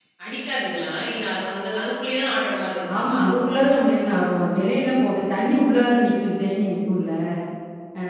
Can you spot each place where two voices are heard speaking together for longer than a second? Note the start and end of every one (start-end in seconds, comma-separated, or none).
none